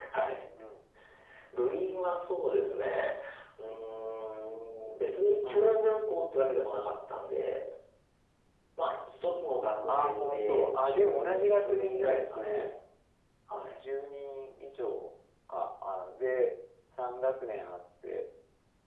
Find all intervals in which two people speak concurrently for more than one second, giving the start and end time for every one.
9.9-12.7

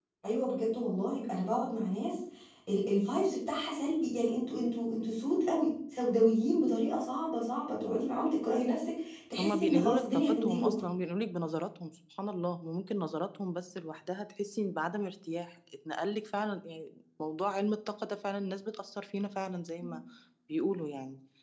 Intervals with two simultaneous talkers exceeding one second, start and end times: 9.4-10.8

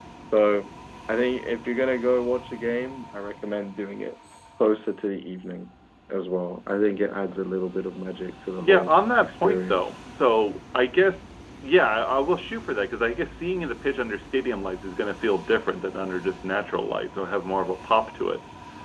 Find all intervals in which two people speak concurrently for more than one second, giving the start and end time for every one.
8.6-9.8

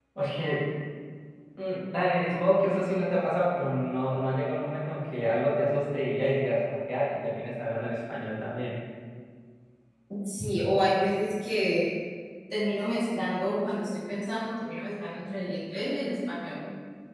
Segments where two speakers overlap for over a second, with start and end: none

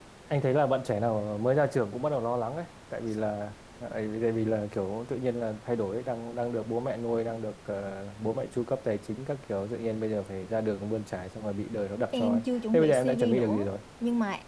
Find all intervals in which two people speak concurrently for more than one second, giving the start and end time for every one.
12.1-13.7

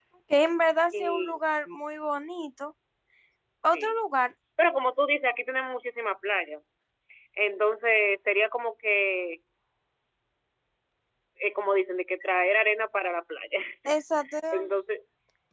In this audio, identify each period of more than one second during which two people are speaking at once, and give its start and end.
none

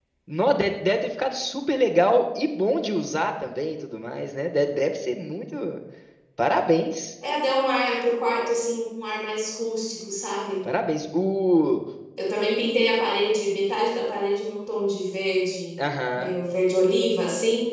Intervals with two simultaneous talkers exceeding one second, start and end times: none

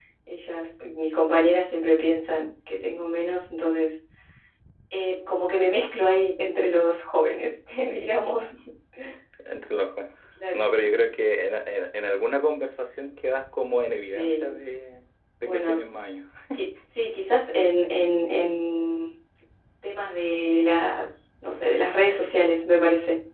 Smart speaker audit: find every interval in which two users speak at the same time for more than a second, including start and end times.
none

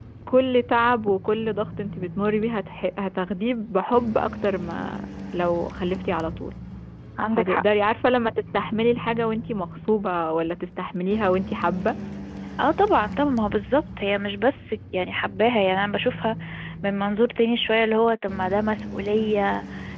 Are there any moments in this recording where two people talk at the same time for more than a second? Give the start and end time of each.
none

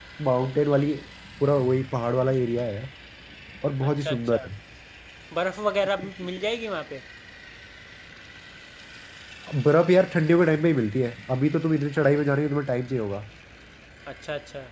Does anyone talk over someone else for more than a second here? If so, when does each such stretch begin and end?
none

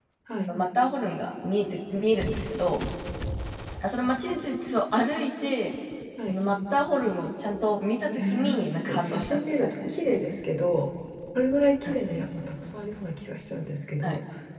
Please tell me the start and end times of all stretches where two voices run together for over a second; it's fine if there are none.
8.2-10.2

